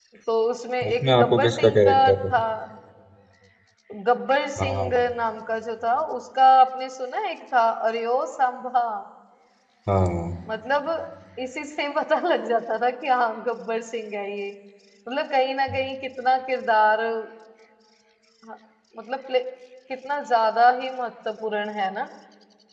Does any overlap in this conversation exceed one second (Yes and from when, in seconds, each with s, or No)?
Yes, from 0.9 s